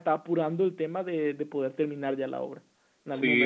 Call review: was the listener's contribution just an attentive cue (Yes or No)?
No